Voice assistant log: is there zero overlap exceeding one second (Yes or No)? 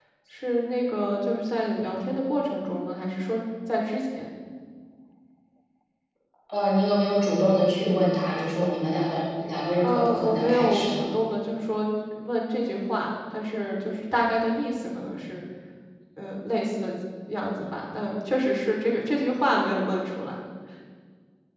No